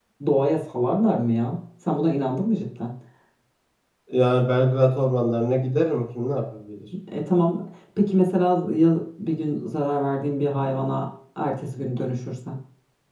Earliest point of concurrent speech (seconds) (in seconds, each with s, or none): none